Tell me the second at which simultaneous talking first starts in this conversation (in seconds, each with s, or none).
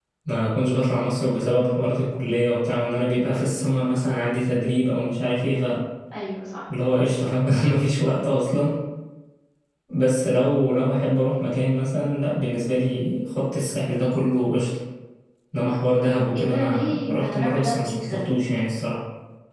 16.4 s